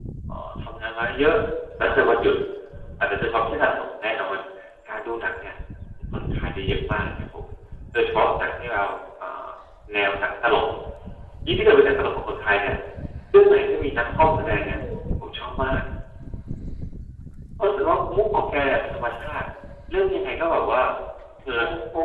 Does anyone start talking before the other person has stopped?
Yes, from 13.5 s

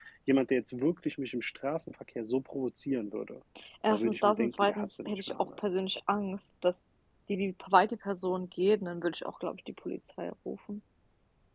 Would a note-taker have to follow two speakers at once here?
Yes, from 3.9 s

